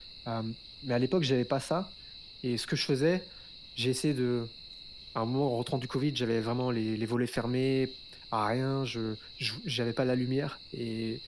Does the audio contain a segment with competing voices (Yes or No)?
No